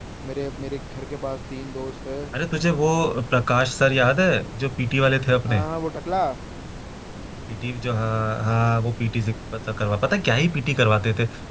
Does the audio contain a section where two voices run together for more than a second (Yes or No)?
No